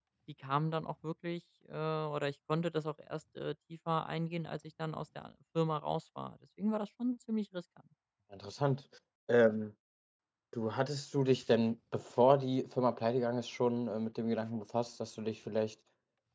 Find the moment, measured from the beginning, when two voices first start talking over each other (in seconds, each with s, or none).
none